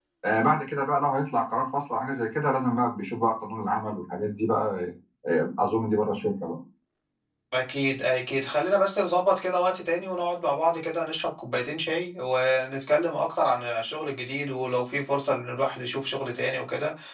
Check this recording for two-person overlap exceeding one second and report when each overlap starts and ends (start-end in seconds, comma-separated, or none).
none